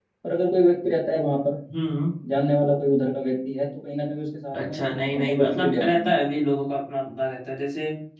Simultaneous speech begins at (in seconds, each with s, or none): 4.5 s